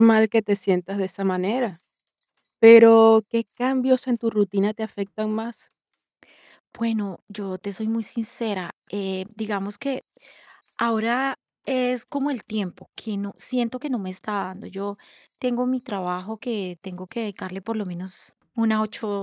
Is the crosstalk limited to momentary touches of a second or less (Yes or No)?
Yes